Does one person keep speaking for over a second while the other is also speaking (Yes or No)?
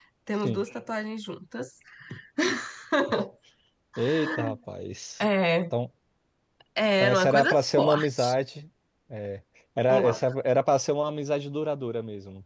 Yes